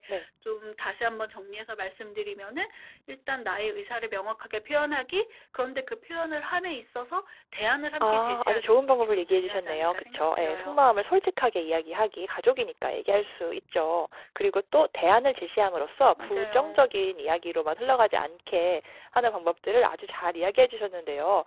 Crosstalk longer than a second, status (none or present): present